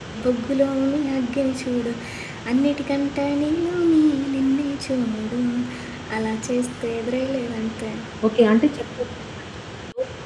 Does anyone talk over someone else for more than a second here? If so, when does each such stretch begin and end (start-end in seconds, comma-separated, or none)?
none